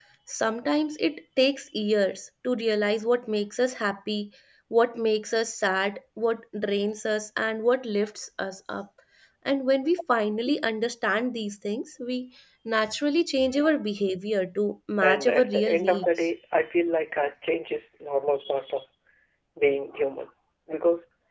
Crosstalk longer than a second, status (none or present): present